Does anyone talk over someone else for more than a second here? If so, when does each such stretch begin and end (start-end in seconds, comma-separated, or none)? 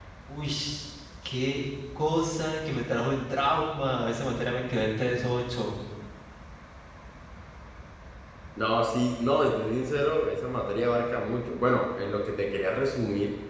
none